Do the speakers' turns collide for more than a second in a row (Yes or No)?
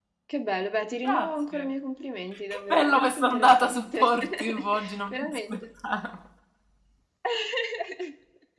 Yes